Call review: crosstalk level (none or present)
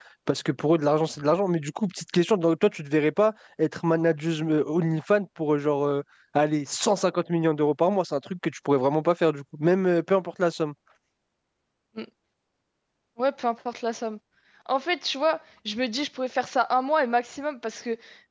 none